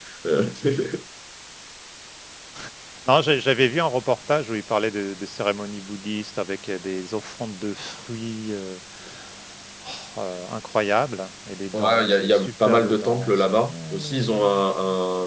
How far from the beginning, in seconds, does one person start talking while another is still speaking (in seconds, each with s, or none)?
11.7 s